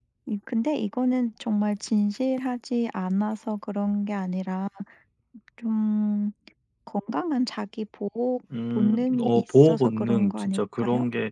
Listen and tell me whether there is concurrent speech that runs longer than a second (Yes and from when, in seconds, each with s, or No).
Yes, from 8.5 s